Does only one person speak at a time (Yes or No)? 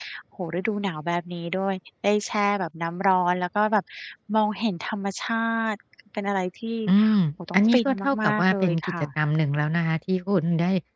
No